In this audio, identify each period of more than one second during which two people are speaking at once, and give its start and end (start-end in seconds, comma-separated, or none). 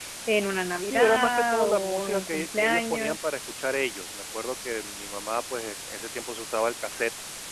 0.8-3.2